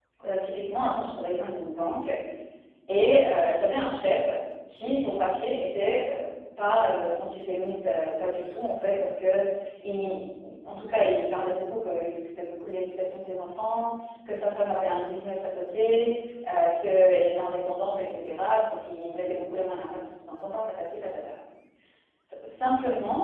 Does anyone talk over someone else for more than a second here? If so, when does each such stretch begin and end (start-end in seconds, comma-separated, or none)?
none